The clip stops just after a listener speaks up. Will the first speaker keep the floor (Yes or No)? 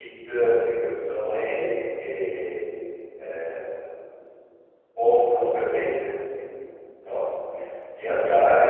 Yes